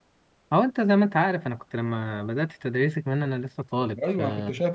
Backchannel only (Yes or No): No